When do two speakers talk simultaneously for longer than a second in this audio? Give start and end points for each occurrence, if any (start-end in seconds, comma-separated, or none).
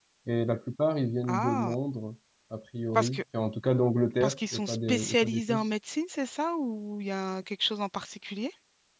4.2-5.7